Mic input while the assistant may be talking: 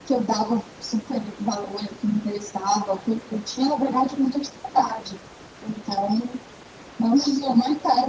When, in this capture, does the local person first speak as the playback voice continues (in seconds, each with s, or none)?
none